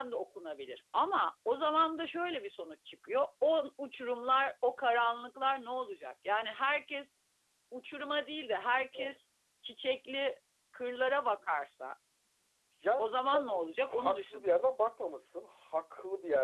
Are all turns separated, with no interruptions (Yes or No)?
No